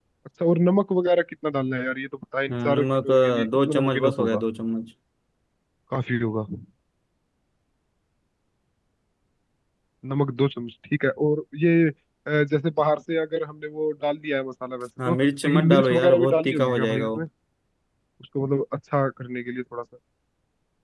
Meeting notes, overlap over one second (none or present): present